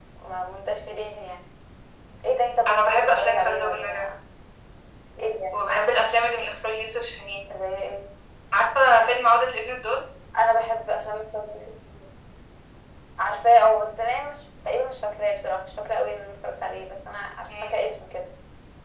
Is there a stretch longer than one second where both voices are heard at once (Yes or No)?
Yes